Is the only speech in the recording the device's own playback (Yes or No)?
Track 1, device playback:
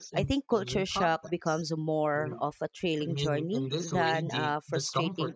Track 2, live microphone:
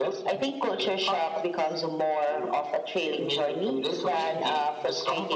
Yes